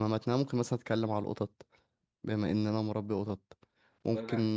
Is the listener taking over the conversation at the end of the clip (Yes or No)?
No